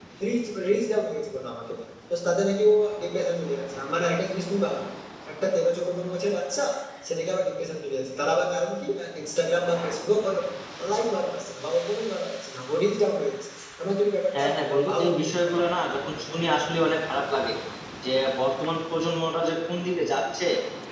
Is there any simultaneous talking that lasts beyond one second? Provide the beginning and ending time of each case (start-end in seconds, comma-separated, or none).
14.3-15.5